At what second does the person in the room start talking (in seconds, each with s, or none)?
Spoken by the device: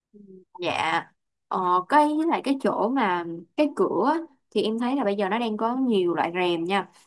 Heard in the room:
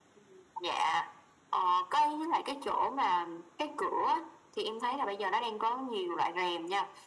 none